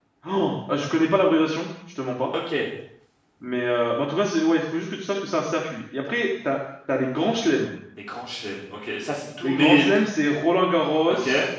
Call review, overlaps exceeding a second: none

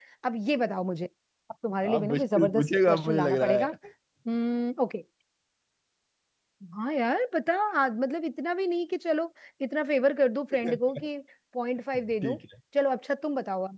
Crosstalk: present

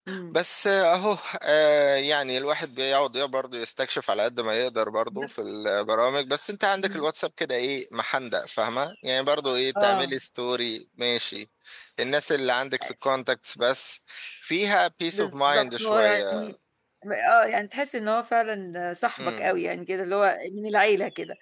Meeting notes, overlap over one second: present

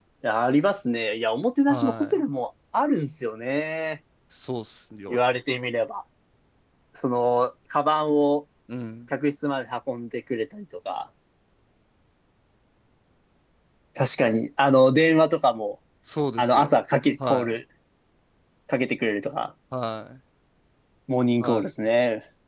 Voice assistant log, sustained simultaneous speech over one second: none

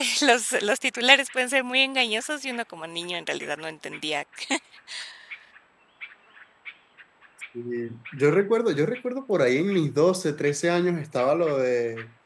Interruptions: none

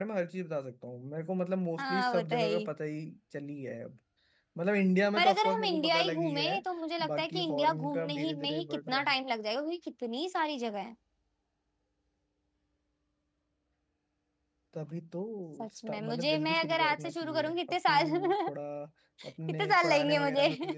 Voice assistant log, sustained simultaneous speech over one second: present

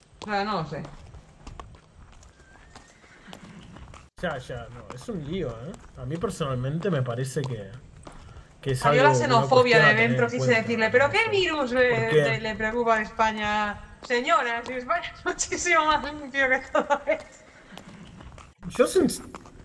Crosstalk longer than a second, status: present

